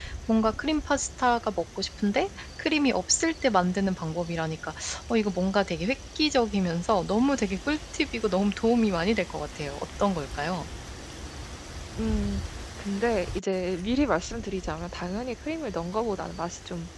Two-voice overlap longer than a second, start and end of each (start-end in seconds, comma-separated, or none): none